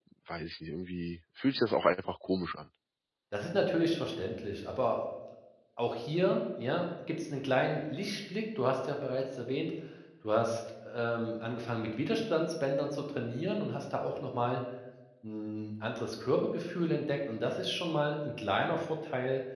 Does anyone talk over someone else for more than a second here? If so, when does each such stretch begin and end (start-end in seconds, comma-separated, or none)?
none